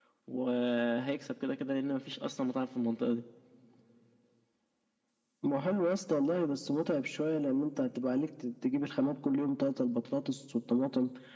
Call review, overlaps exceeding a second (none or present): none